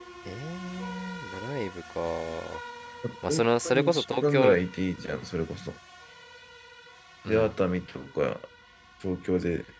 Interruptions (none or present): present